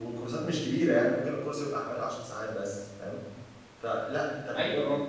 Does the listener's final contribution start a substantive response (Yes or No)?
No